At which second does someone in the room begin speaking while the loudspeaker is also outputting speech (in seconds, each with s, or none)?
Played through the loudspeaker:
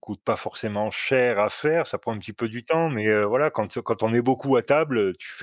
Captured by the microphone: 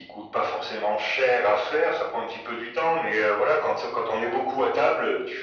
none